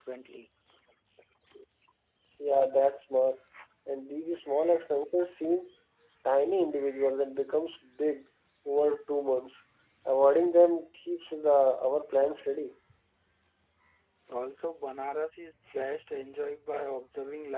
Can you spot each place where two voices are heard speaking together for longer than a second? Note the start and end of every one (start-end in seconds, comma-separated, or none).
none